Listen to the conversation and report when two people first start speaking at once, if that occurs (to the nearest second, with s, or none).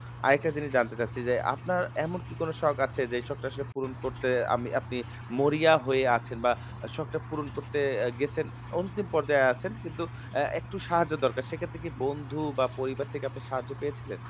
none